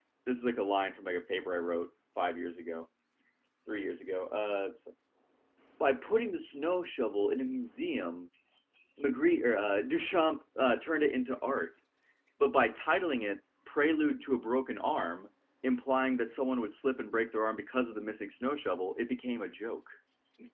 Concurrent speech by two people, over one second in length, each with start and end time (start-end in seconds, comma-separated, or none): none